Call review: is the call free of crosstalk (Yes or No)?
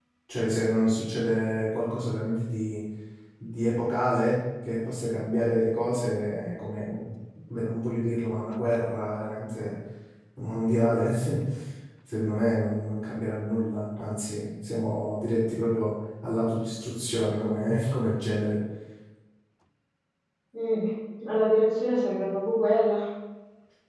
Yes